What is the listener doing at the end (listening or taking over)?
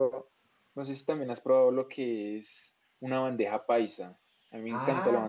taking over